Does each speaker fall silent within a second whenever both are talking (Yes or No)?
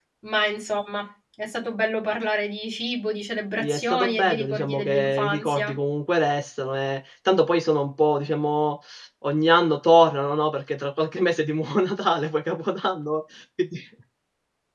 No